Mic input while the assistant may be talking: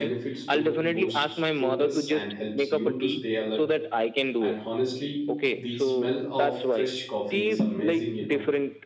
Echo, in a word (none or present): present